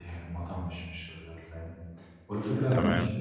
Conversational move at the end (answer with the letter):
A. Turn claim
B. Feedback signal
B